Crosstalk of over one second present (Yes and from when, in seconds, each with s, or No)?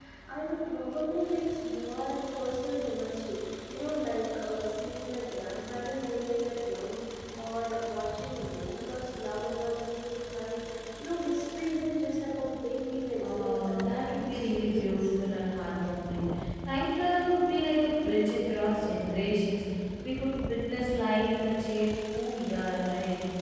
Yes, from 13.2 s